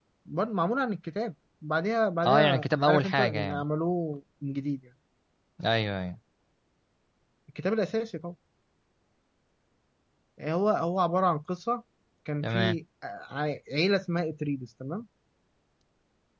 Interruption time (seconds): 2 s

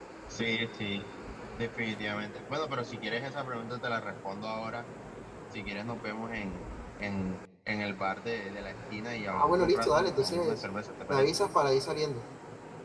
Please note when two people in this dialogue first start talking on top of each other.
9 s

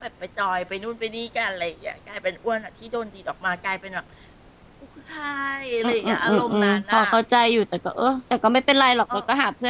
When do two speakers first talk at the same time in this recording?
6 s

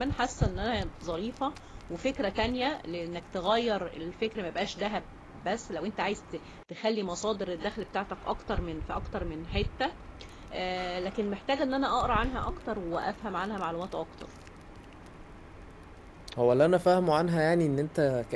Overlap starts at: none

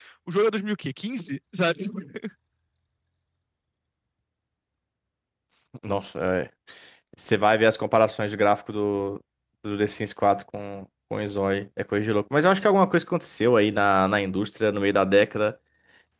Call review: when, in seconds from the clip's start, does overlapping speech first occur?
none

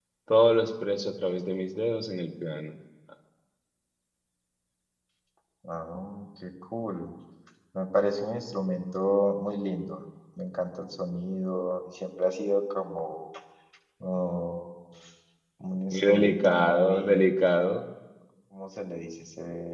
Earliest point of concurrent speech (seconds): 16 s

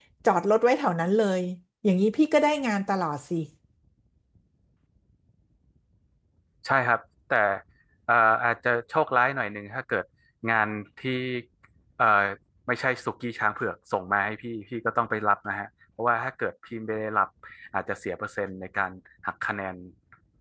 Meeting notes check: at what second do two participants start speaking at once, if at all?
none

